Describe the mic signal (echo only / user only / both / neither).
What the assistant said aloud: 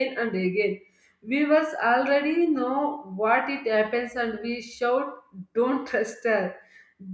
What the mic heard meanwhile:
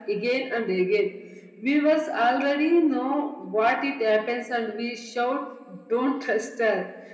echo only